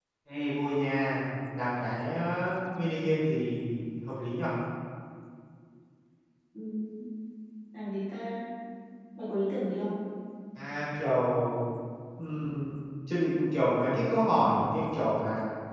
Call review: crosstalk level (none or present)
none